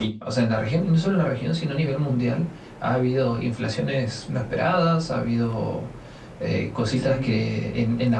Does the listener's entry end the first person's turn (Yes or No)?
No